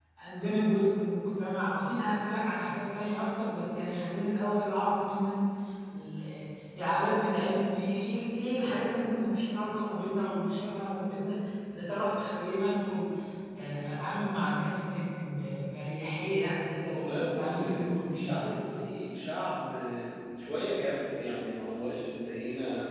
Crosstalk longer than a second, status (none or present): present